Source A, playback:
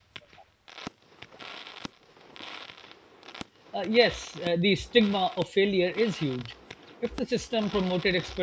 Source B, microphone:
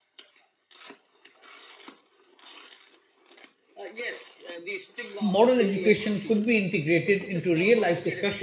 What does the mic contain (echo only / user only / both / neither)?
both